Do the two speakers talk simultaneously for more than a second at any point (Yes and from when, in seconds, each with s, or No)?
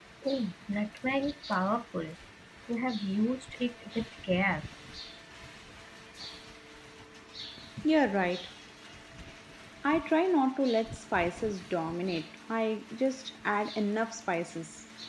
No